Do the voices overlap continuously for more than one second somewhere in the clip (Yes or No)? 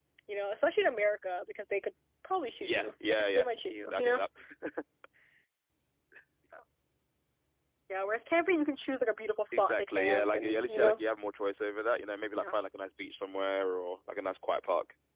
Yes